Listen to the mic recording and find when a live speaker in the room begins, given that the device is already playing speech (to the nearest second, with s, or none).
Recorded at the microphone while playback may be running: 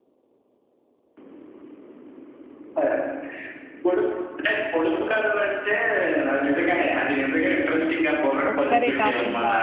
9 s